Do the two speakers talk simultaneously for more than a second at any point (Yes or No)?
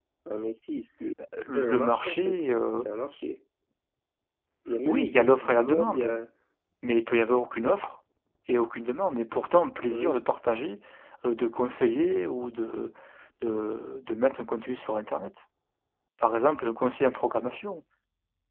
Yes